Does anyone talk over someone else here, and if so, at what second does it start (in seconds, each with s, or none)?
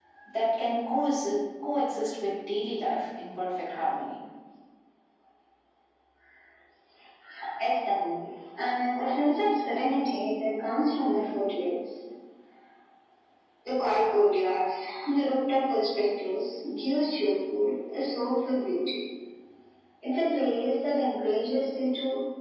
none